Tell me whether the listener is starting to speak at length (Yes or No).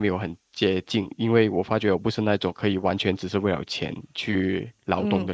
Yes